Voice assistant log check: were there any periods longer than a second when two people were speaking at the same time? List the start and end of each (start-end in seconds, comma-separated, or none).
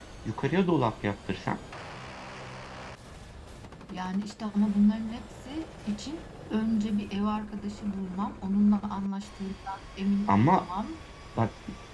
none